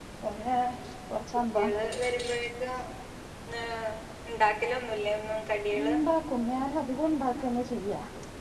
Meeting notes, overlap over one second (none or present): none